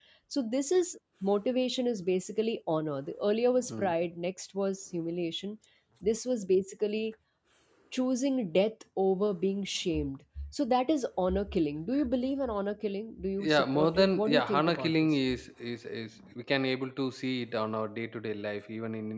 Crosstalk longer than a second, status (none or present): present